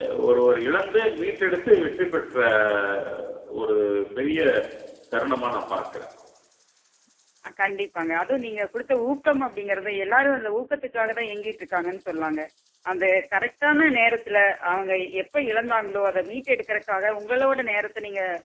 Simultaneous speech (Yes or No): No